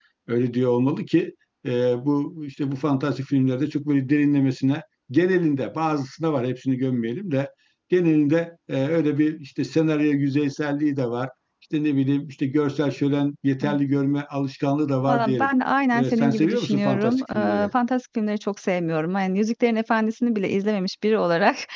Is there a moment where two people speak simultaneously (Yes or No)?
Yes